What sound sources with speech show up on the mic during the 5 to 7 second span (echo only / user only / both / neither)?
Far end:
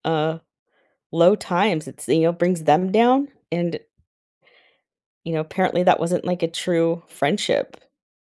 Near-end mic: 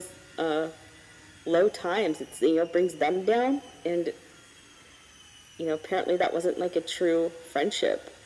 echo only